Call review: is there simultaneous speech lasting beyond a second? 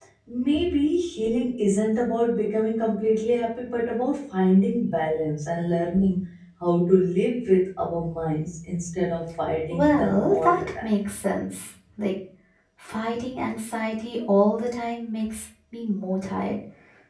Yes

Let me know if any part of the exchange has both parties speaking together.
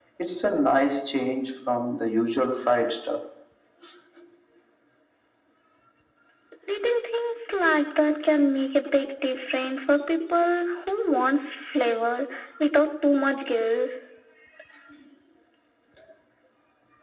No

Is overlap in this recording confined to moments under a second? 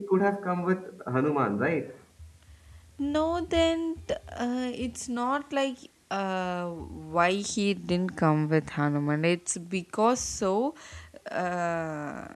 Yes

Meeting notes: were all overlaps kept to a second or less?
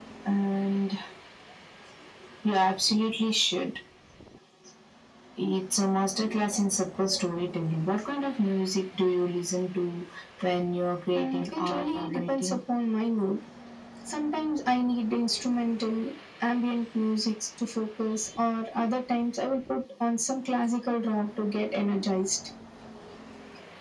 No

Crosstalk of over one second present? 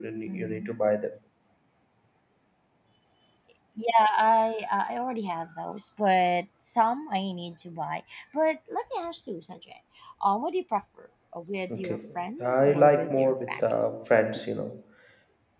Yes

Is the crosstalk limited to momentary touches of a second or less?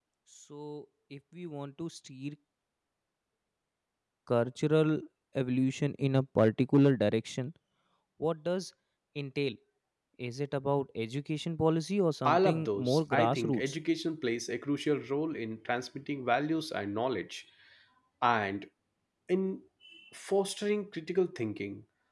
No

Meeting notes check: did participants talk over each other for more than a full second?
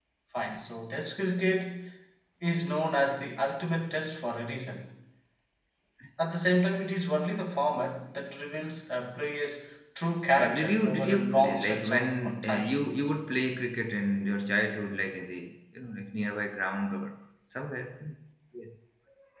Yes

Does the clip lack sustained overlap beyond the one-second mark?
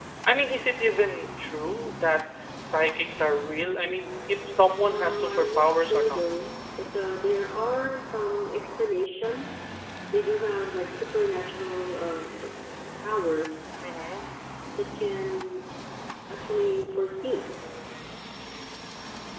No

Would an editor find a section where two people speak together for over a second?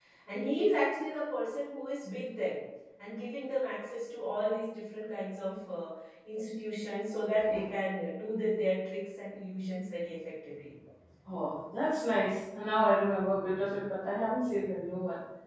No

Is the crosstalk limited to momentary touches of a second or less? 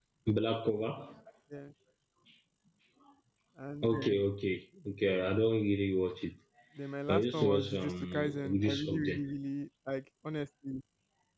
No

